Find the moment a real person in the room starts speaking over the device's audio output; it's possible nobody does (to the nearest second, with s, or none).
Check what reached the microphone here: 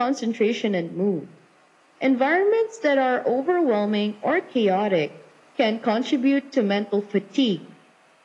none